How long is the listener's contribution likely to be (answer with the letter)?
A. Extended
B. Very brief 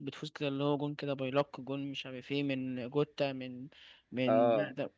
B